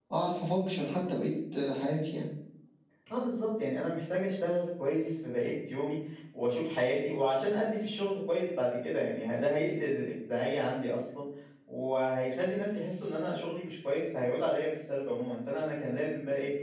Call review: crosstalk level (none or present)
none